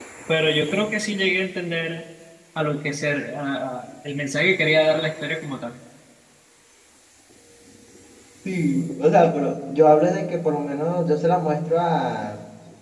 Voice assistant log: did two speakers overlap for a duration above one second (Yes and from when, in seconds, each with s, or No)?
No